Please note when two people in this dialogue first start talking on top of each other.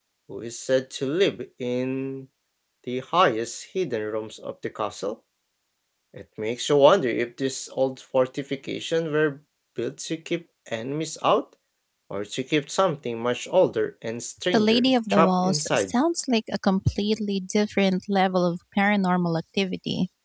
14.5 s

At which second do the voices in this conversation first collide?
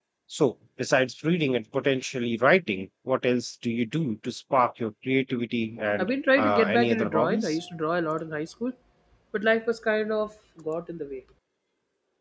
6.0 s

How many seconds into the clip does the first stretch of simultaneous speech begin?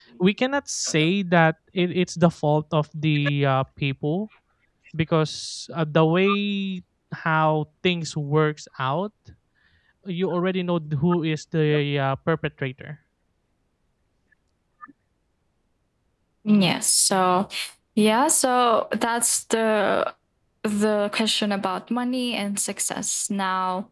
none

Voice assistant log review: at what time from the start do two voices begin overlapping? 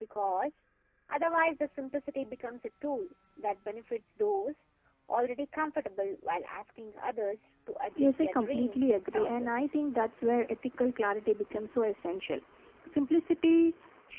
7.9 s

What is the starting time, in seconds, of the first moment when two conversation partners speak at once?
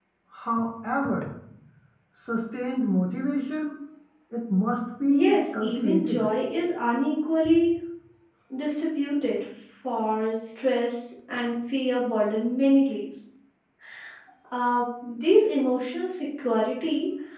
5.0 s

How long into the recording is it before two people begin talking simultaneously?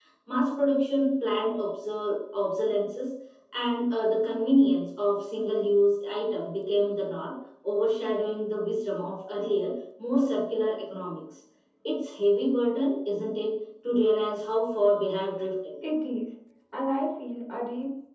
none

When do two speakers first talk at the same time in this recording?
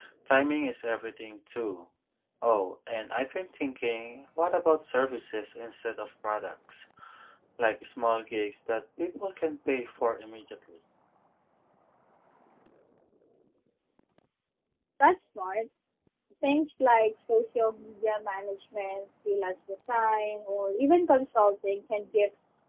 none

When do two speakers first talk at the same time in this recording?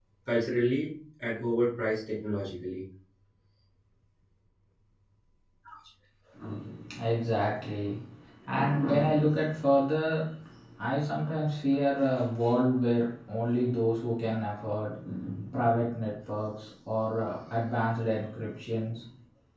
none

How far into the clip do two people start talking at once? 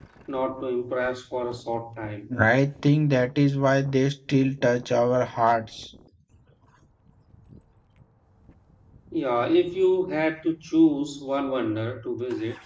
none

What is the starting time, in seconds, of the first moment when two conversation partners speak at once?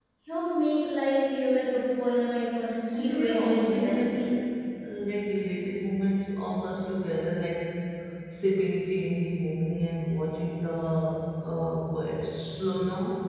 2.9 s

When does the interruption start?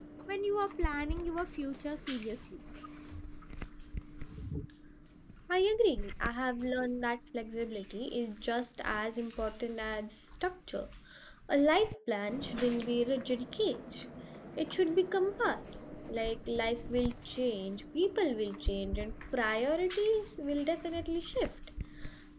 none

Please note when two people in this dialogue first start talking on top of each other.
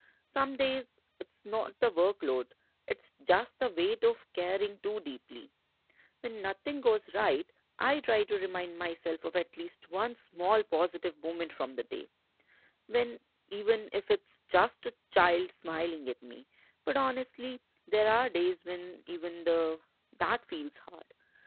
none

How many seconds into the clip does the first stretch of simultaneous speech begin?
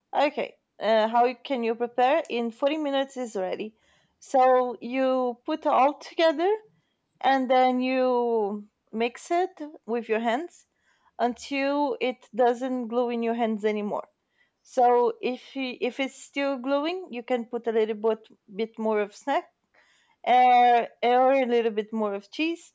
none

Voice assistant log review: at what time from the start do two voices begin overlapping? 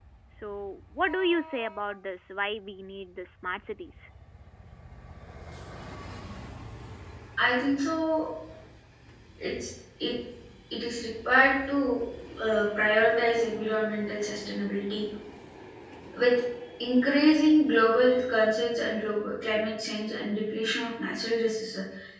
none

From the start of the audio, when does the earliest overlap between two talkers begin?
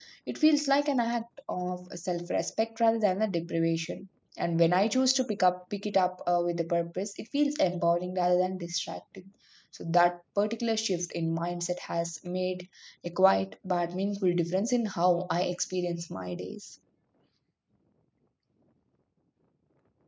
none

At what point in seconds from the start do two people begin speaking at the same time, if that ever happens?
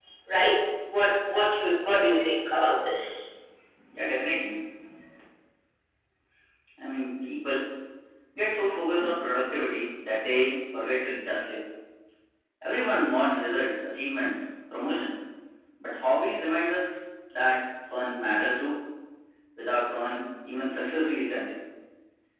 none

